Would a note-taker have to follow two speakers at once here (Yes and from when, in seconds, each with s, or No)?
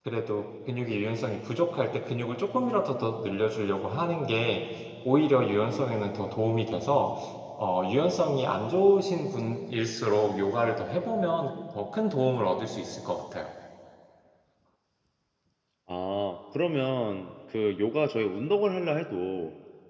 No